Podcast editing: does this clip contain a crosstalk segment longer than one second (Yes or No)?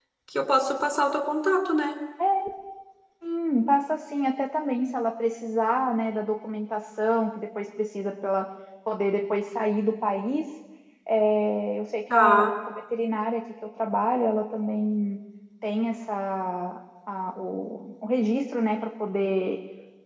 No